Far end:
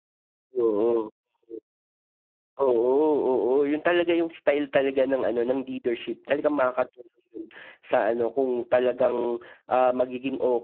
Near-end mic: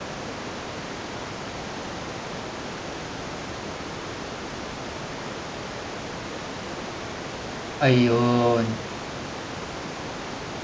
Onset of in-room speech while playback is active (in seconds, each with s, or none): 7.8 s